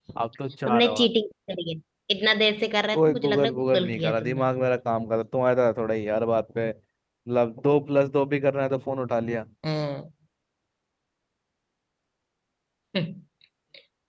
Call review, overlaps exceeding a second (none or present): present